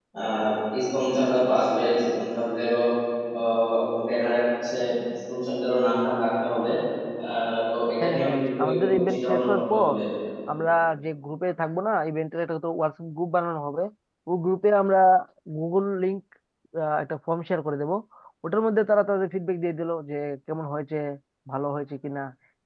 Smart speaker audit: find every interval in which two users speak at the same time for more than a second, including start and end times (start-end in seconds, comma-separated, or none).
8.0-9.9